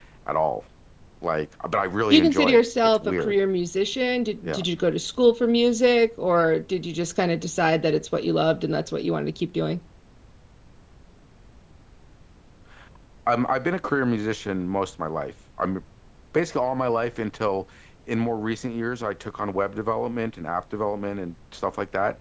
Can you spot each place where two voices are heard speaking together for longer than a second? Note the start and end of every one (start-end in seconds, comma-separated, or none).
2.1-3.4